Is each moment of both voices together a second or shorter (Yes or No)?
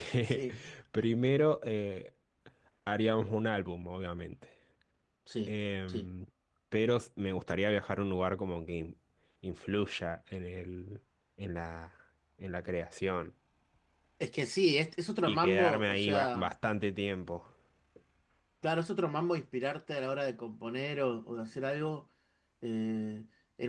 No